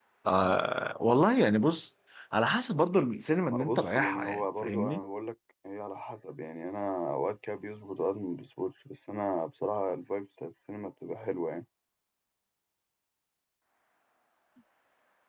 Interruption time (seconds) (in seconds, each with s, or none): 3.5 s